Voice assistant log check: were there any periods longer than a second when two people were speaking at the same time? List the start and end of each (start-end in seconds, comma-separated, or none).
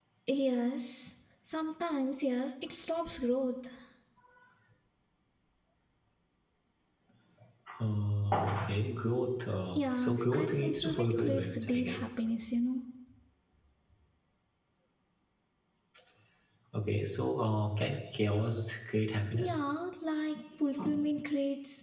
9.7-12.1